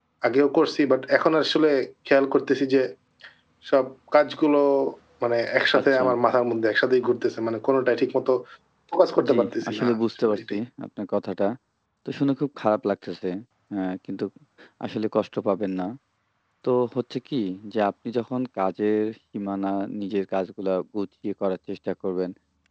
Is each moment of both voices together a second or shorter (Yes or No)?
No